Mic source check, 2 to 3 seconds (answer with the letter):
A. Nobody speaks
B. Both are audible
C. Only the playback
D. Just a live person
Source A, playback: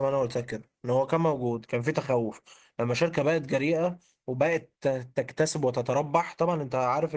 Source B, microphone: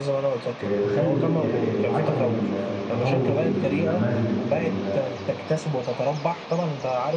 B